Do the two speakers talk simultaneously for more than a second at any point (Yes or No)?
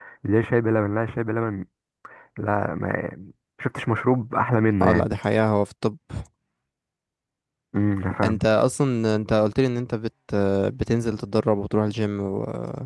No